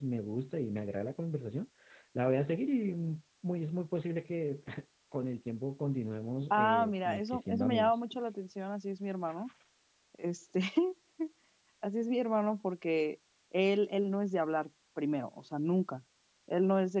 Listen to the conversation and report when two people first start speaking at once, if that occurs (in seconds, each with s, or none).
6.5 s